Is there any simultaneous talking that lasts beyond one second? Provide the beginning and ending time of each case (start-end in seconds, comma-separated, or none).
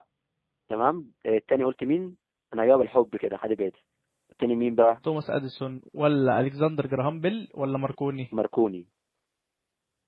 none